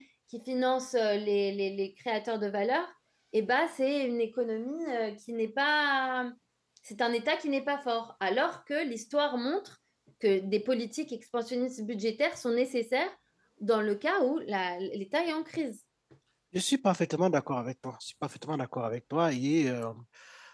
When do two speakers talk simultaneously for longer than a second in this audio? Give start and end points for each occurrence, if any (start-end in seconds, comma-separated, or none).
none